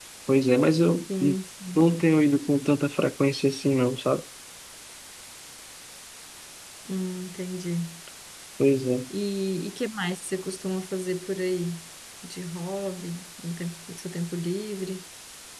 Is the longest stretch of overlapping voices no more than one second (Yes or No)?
Yes